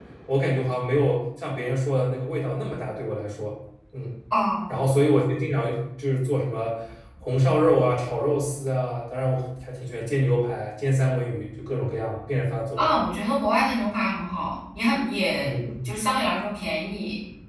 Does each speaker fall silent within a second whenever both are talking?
Yes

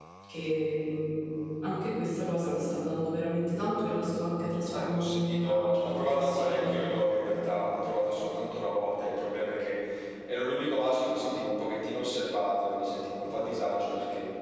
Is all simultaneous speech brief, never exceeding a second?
No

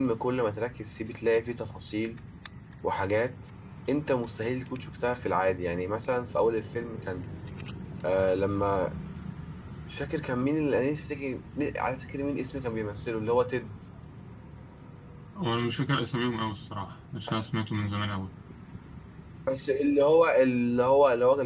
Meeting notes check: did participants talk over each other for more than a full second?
No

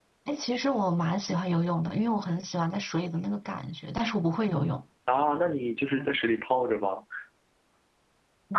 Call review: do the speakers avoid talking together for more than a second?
Yes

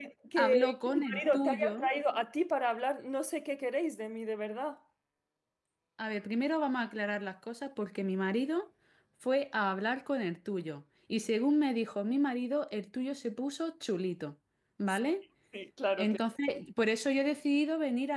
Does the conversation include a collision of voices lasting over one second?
Yes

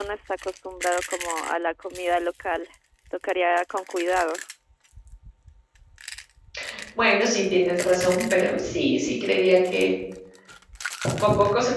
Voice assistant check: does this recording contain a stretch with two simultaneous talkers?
No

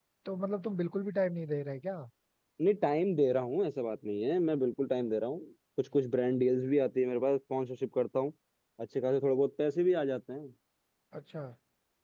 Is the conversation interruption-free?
Yes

